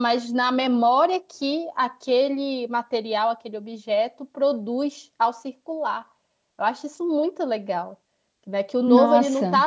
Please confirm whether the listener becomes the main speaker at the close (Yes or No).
No